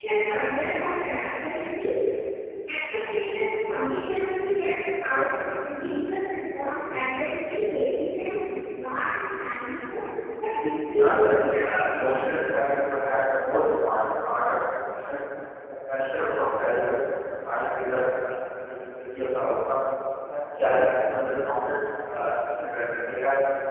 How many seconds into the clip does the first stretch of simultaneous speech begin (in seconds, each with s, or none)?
10.9 s